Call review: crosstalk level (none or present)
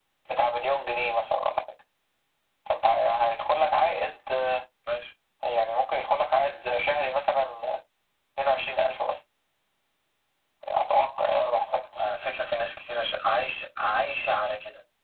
none